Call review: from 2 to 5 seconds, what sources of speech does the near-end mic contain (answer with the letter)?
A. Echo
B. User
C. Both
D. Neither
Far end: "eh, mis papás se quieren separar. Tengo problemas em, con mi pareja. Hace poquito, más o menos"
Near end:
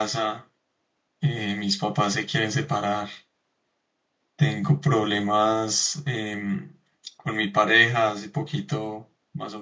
A